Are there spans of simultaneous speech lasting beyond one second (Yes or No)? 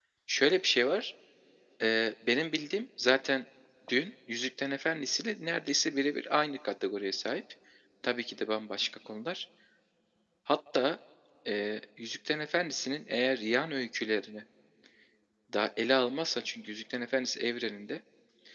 No